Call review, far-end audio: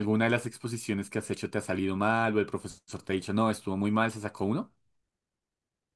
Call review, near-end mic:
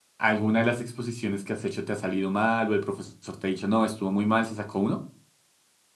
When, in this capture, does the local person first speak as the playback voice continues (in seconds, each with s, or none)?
none